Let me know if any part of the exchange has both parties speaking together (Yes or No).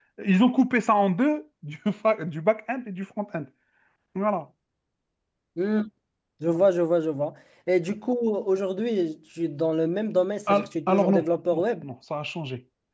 Yes